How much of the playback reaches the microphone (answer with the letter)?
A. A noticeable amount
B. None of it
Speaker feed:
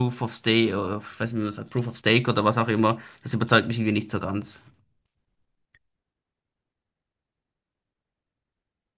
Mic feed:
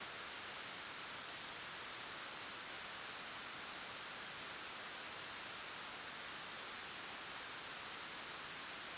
B